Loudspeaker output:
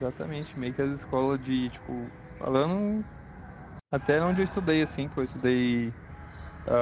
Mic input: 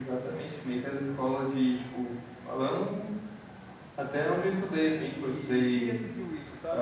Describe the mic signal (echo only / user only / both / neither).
both